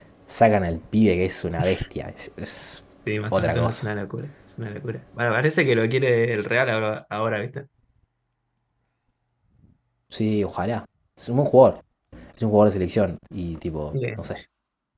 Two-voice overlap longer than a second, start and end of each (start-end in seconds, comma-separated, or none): none